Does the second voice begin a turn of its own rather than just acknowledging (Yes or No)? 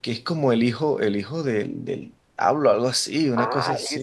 Yes